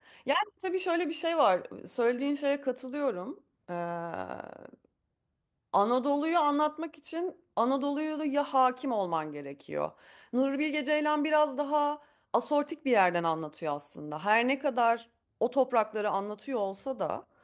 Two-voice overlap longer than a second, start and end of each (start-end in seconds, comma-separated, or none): none